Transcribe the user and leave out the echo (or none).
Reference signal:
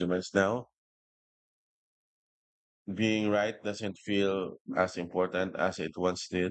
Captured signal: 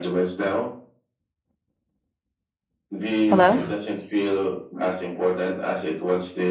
Hello?